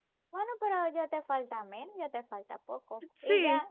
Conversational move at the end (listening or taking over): listening